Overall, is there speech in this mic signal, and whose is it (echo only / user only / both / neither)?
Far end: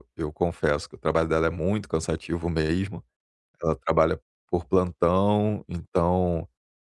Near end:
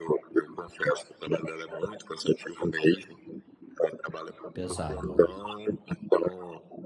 both